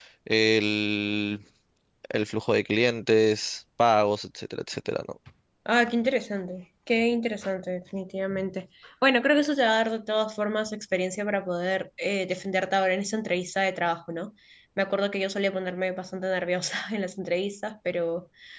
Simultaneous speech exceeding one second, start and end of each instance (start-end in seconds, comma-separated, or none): none